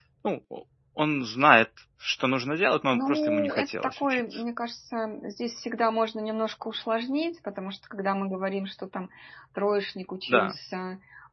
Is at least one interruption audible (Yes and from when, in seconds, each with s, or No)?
Yes, from 2.9 s